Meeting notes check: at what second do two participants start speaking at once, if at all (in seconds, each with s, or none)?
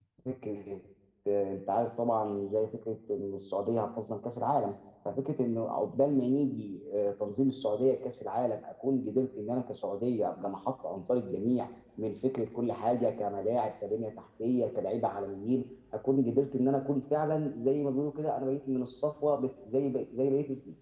none